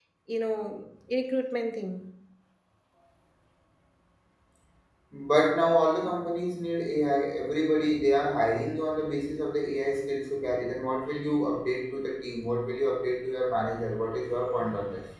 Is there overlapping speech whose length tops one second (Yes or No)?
No